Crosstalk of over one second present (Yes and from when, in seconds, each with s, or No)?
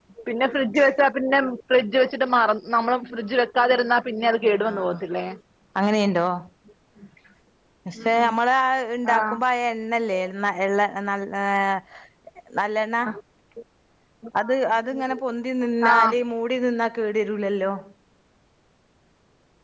No